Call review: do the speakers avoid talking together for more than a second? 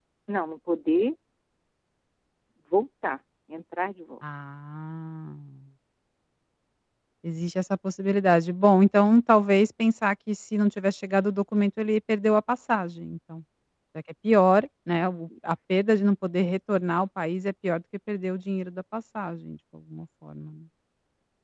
Yes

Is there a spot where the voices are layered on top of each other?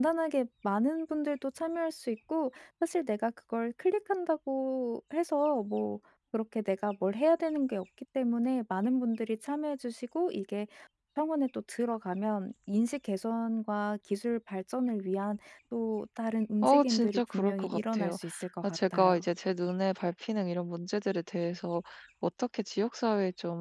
Yes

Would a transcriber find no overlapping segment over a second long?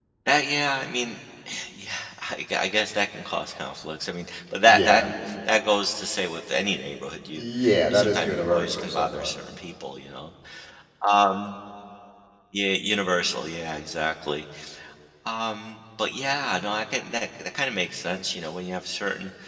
No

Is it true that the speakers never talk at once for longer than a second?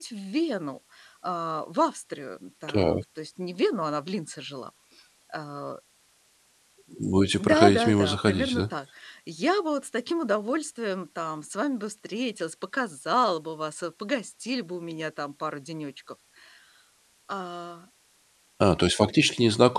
No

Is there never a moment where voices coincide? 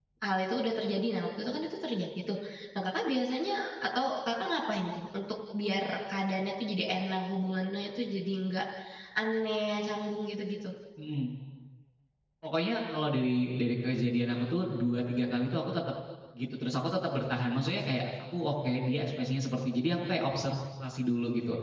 Yes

